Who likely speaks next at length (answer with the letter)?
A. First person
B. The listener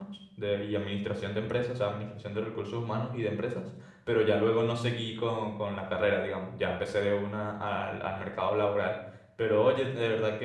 A